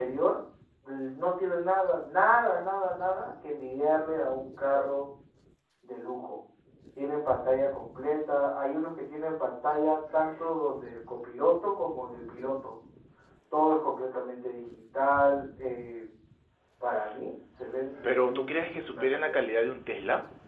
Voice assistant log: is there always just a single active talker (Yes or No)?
No